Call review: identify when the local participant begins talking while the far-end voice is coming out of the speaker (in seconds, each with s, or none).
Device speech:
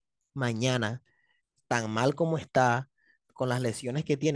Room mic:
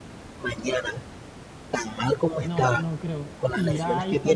2.4 s